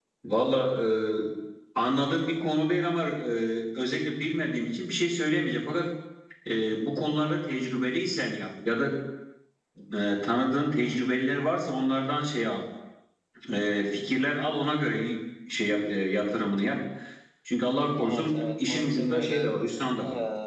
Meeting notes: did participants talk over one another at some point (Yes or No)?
Yes